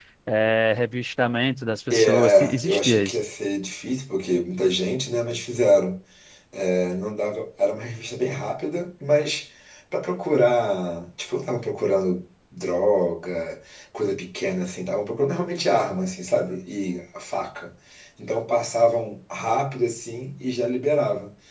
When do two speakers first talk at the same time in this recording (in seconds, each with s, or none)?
1.9 s